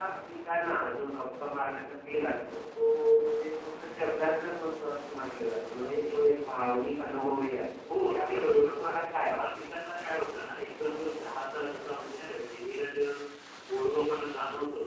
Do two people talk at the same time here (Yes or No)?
Yes